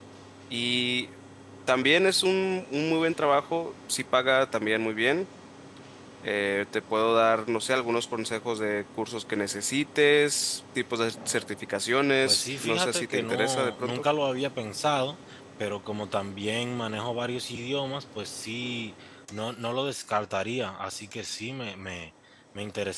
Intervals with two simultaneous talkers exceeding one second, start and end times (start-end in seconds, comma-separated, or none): 12.2-14.0